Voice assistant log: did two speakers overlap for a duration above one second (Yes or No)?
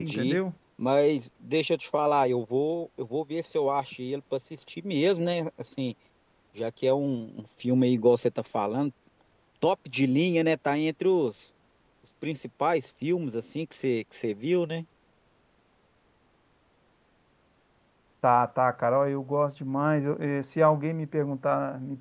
No